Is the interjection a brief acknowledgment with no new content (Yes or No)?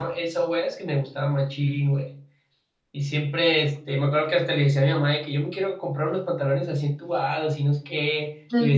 Yes